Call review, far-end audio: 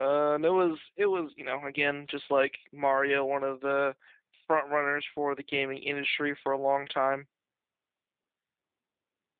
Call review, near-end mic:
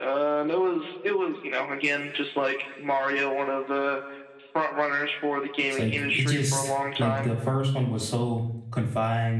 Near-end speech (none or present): present